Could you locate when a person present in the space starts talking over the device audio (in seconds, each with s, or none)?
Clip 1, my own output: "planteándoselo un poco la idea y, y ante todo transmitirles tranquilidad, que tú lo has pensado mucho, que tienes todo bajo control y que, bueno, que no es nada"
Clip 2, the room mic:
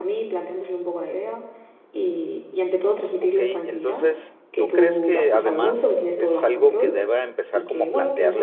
3.2 s